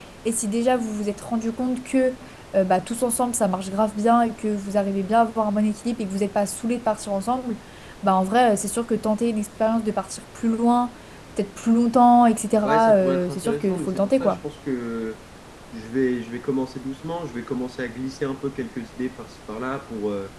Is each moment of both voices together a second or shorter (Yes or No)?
No